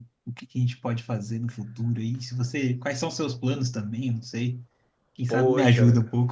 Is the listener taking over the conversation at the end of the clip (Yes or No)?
Yes